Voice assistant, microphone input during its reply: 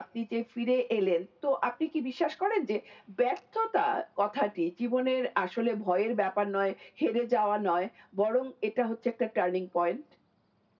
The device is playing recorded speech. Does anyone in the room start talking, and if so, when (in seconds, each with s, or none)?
none